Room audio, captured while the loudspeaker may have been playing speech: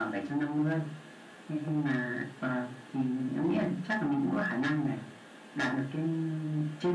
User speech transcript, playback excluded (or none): none